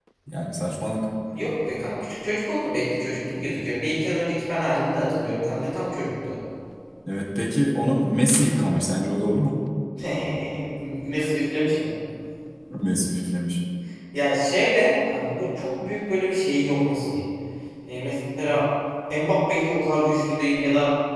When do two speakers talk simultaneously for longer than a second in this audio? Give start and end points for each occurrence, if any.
none

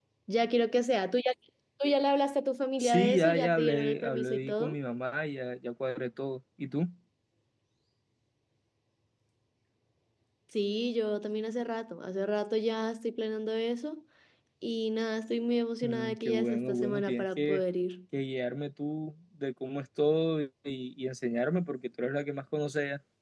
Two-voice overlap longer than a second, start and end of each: 2.8-4.8, 15.8-17.6

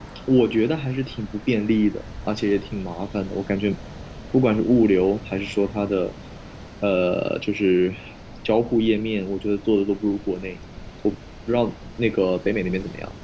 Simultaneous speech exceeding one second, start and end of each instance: none

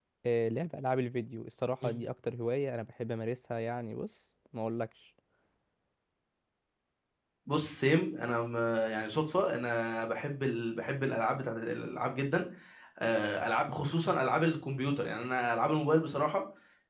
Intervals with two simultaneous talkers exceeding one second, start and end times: none

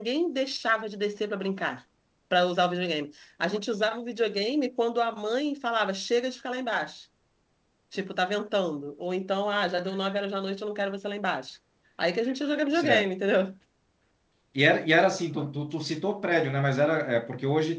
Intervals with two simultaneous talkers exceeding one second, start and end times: none

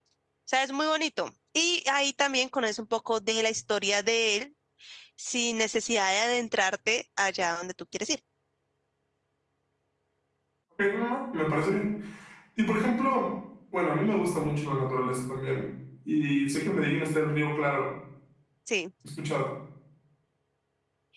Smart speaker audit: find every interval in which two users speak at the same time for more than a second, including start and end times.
none

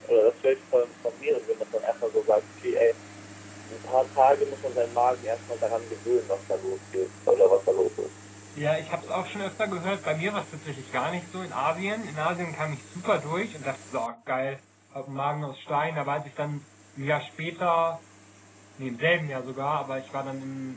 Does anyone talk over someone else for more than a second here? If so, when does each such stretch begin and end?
none

